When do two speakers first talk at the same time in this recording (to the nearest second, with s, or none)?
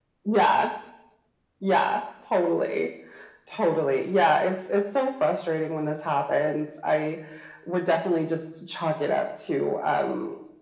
none